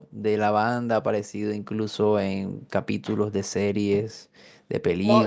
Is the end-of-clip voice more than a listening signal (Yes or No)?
Yes